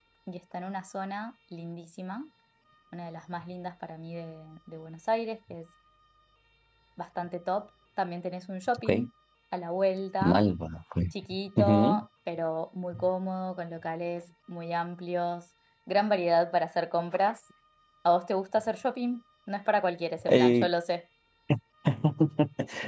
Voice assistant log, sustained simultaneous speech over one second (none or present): none